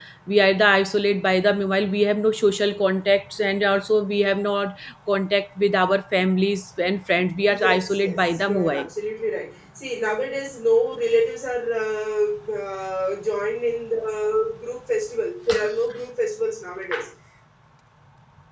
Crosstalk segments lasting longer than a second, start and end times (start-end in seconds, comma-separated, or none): 7.5-8.9